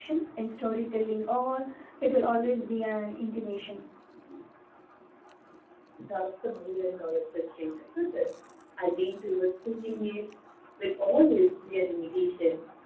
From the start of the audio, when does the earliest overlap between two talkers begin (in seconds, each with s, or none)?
none